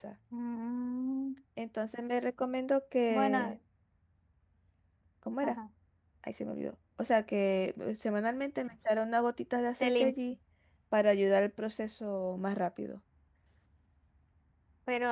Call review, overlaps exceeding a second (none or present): none